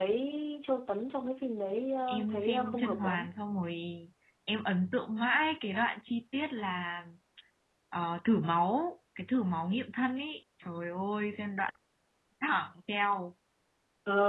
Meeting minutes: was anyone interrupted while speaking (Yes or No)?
Yes